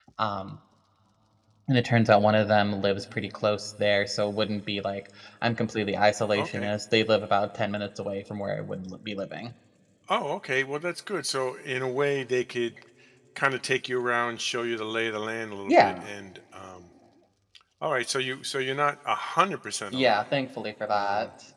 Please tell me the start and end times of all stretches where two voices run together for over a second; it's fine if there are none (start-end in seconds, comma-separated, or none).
none